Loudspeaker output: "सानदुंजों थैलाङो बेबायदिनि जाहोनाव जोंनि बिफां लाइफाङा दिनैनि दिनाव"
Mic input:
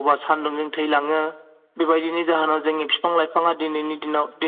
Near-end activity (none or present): none